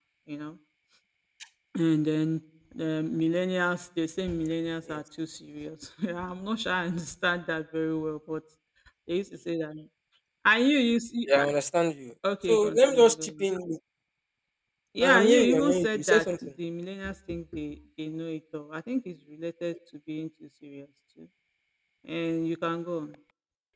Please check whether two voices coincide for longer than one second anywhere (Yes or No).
Yes